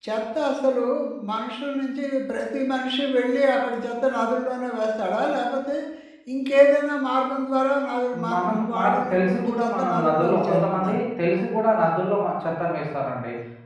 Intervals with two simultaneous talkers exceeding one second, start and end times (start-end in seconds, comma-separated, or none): 8.3-10.9